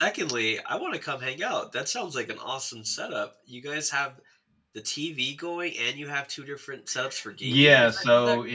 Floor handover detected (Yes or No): Yes